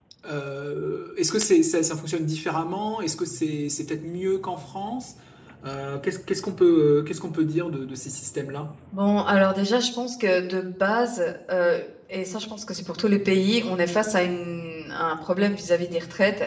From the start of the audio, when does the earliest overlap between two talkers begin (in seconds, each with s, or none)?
none